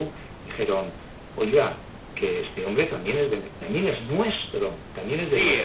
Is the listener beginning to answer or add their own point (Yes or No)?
Yes